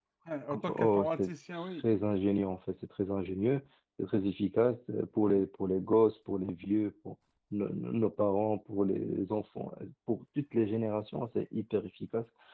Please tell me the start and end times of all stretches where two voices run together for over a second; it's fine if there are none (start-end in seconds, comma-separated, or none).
0.5-1.9